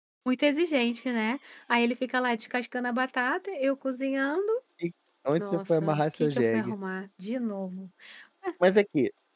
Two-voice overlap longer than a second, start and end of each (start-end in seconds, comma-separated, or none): 5.4-6.7